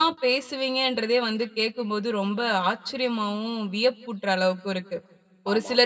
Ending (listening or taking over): listening